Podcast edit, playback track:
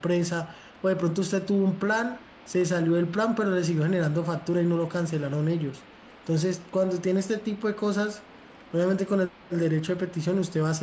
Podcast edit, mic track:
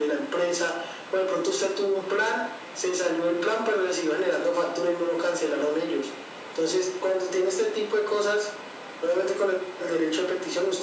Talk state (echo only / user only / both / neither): echo only